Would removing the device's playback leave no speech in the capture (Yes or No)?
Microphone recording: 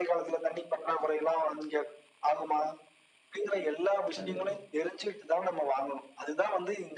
No